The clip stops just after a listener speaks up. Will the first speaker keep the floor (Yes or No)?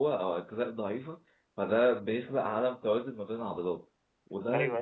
No